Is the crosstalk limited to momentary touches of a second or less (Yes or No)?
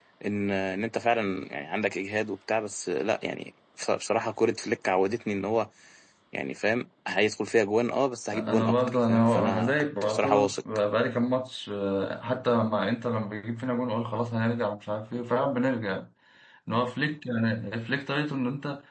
No